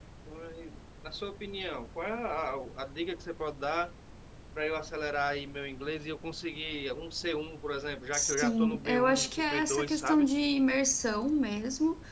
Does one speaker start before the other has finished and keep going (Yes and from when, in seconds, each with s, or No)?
Yes, from 8.1 s